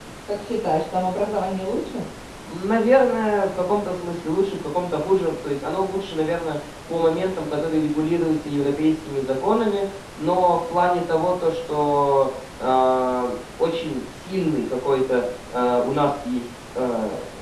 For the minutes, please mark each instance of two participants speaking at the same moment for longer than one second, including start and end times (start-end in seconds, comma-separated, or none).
none